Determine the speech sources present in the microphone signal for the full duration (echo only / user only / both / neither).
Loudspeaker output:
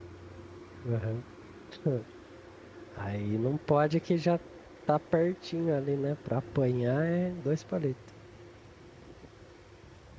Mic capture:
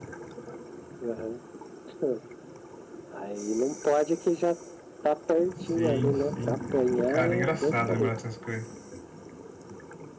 both